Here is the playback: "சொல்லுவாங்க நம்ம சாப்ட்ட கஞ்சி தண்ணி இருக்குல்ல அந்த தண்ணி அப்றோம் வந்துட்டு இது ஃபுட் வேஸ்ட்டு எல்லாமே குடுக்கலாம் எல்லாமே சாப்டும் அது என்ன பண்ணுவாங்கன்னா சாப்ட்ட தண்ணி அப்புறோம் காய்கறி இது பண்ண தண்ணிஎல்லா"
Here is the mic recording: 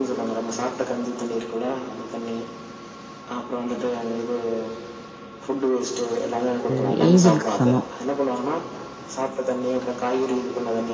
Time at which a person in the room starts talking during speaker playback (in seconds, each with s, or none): 6.7 s